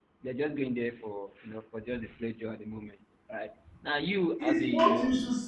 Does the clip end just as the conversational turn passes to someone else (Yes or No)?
Yes